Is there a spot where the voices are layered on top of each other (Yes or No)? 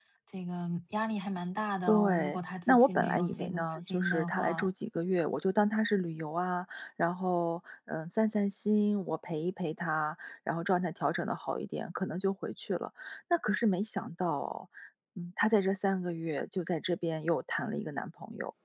Yes